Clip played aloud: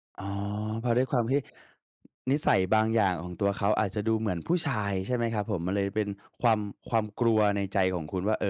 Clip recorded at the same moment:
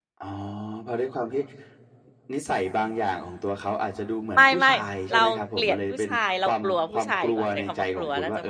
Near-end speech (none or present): present